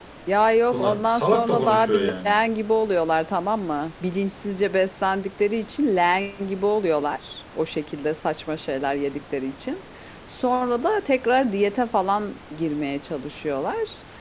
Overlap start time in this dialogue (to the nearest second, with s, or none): 1 s